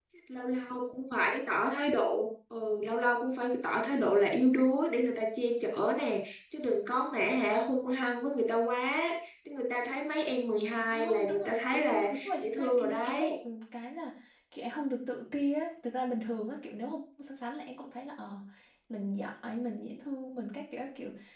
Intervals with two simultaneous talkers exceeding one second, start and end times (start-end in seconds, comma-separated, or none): 10.9-13.4